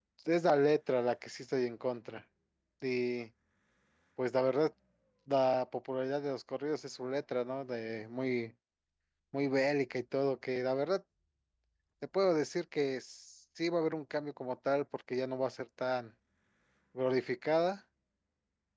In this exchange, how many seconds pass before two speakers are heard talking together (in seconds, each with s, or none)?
none